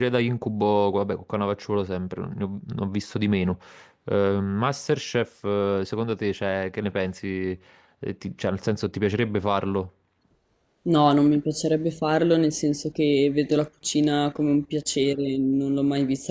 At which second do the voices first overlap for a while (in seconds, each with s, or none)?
none